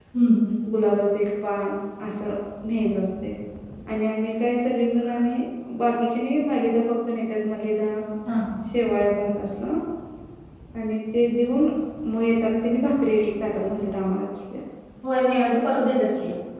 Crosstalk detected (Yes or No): No